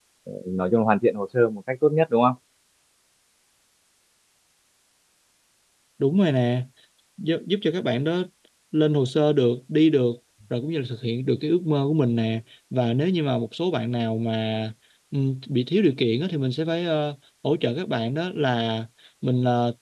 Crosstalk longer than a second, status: none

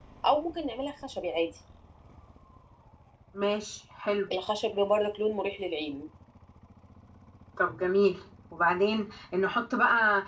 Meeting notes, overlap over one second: none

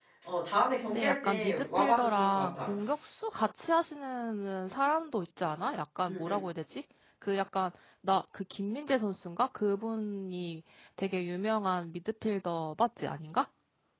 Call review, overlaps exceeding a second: present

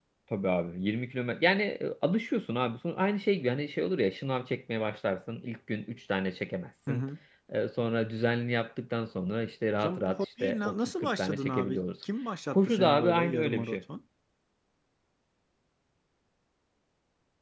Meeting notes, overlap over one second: present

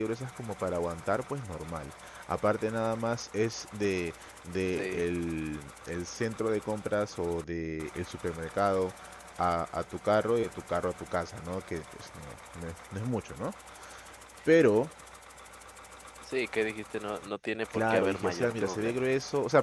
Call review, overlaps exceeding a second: present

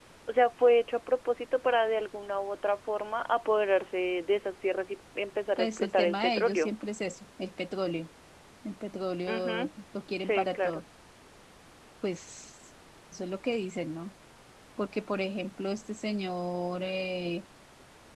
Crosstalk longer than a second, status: present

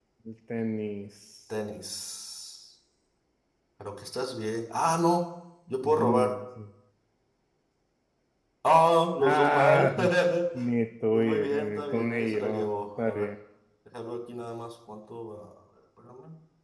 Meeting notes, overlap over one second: present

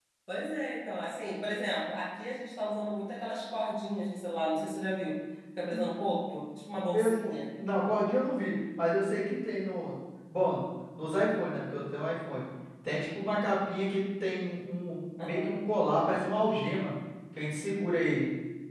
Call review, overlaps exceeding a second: none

